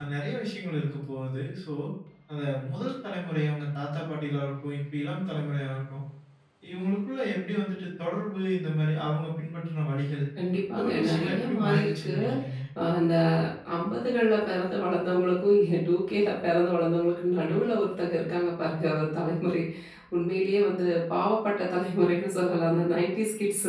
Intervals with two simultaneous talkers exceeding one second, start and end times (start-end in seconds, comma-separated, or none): 10.8-12.1